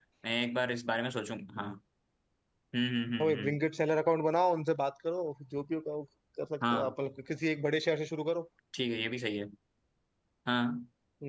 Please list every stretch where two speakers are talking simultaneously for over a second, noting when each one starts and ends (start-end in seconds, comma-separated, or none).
none